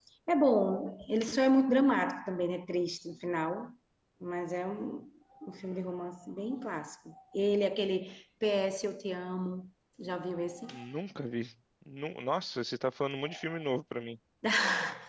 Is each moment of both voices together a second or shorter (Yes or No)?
Yes